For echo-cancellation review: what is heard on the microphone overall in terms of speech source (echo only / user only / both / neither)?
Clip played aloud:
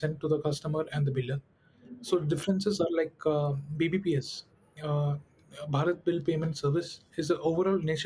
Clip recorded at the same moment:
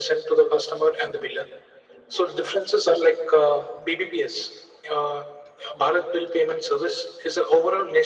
echo only